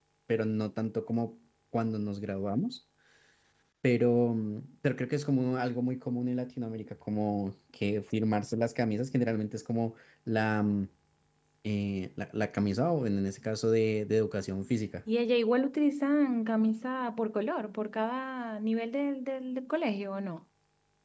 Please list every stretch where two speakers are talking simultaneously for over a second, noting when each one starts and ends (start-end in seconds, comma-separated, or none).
none